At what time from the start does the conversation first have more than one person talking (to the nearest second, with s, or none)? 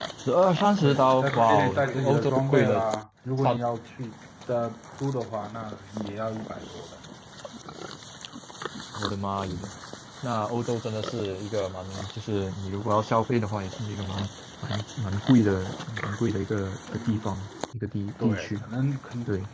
1 s